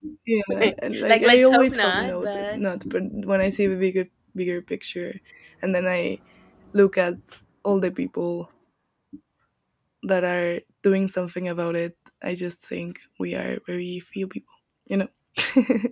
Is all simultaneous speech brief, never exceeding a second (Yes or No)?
No